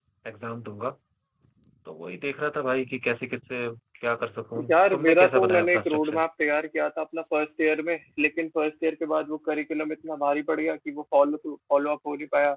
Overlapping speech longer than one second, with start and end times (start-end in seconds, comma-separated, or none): 4.7-6.2